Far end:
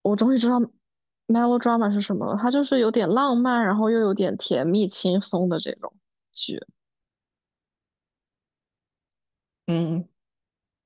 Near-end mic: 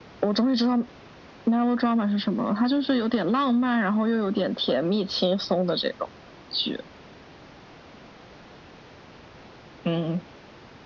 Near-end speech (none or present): none